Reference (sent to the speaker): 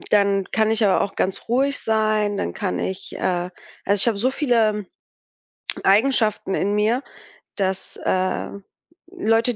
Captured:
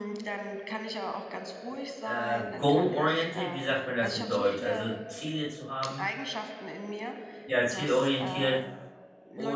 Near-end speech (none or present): present